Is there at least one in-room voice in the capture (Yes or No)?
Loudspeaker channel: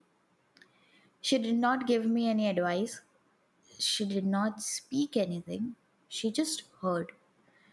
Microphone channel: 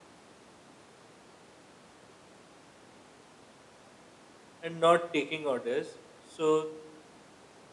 Yes